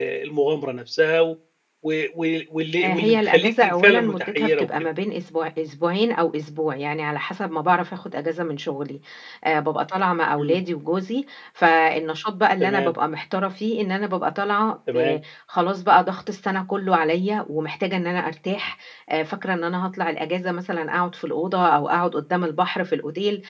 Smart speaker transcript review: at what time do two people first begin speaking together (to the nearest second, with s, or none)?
3 s